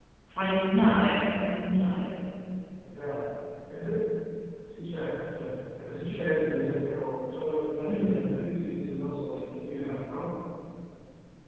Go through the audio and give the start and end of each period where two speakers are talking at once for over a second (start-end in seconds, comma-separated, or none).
none